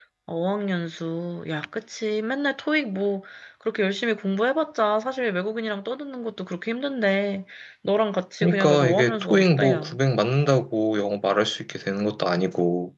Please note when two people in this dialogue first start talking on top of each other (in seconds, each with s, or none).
8.4 s